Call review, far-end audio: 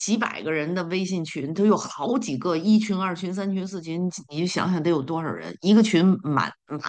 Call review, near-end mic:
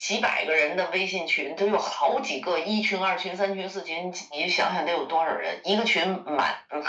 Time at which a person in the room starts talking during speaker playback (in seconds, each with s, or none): none